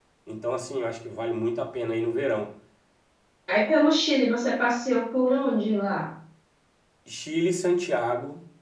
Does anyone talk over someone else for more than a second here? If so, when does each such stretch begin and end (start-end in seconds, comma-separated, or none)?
none